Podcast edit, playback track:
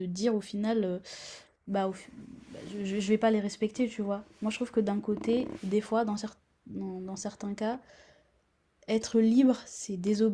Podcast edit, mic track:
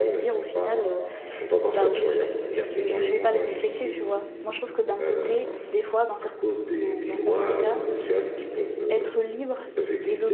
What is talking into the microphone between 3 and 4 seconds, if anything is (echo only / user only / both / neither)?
both